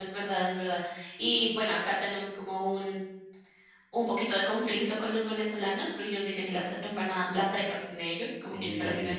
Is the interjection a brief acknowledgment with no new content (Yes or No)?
Yes